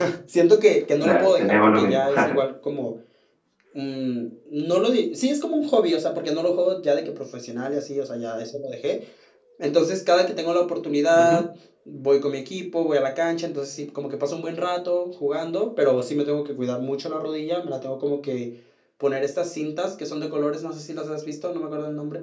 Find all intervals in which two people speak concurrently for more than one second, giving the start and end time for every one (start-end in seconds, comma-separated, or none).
1.0-2.4